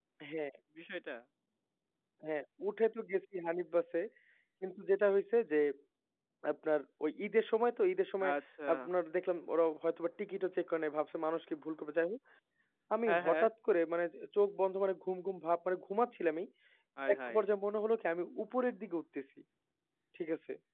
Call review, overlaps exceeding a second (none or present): none